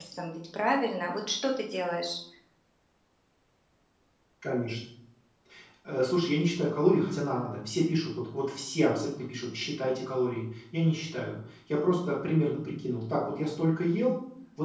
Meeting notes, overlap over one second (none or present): none